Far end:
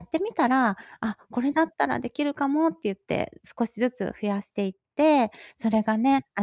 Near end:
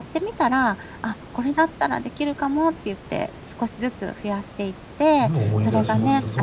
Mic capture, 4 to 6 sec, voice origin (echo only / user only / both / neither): both